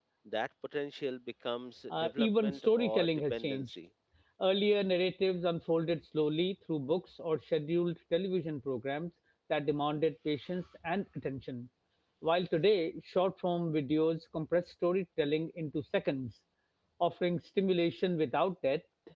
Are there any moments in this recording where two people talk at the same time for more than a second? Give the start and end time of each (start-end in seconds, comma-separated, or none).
1.9-3.8